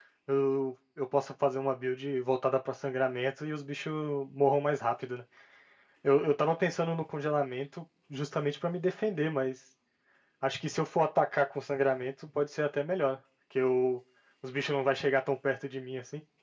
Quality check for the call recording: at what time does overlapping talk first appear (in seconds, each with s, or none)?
none